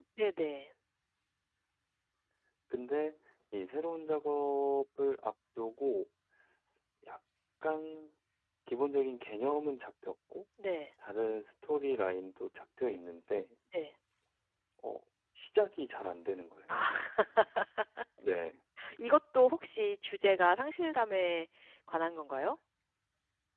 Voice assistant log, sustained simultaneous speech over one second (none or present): none